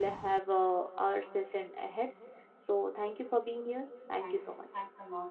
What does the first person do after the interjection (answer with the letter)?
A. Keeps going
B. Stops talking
B